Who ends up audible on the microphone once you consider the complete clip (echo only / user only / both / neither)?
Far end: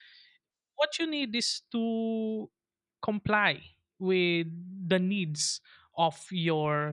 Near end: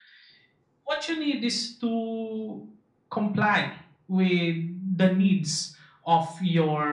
echo only